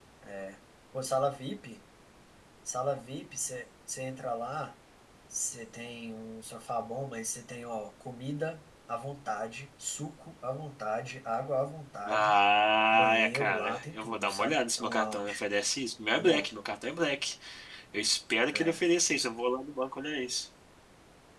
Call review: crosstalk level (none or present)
present